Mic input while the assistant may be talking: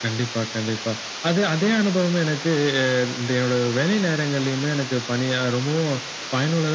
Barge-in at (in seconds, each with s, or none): none